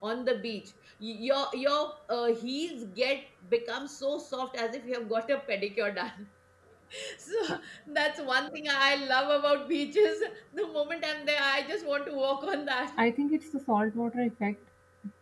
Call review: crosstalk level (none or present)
none